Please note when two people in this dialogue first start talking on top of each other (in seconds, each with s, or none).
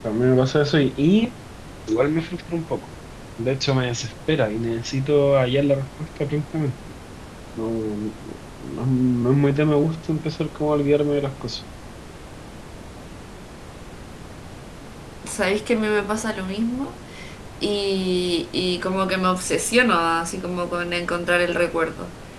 none